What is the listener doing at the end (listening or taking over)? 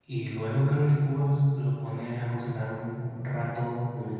listening